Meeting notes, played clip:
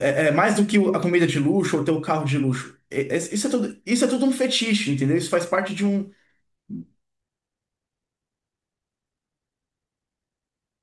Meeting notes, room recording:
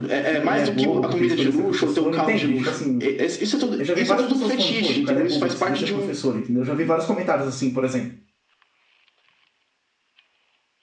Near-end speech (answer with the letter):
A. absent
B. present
B